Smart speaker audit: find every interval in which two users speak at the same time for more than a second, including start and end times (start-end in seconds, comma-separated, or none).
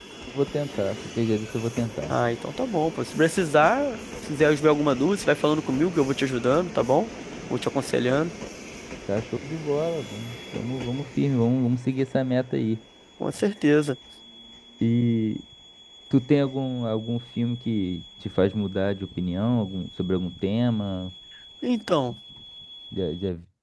none